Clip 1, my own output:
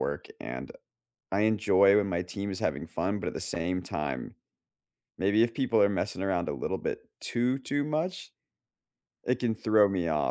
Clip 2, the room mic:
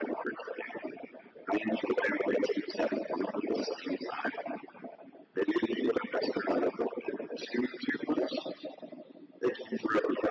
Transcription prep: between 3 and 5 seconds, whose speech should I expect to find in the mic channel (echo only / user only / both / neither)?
echo only